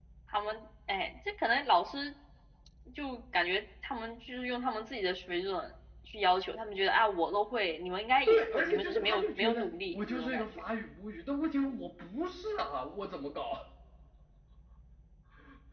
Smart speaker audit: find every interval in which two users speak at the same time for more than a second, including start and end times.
8.3-10.6

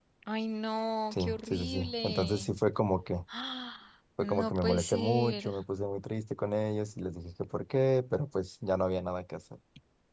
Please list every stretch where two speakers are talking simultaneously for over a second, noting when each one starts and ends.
1.1-2.5, 4.2-5.5

